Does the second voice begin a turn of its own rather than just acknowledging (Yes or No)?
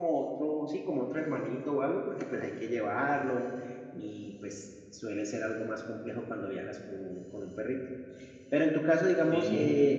No